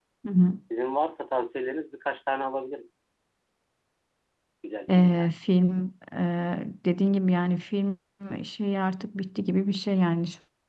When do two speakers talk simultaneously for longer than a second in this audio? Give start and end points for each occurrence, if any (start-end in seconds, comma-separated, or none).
none